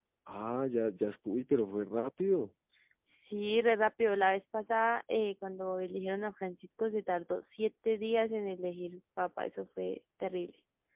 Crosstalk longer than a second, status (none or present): none